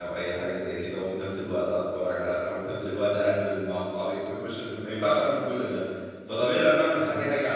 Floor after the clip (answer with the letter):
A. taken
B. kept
B